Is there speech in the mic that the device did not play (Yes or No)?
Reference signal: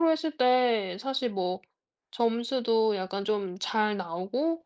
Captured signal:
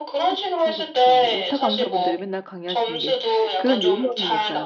Yes